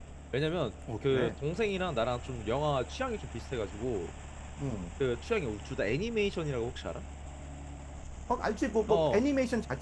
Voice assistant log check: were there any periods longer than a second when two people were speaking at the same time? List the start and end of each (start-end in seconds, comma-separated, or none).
none